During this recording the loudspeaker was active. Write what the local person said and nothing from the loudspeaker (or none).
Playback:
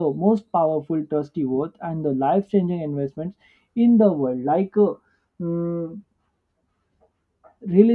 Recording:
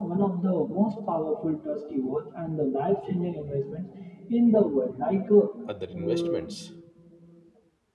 other investments.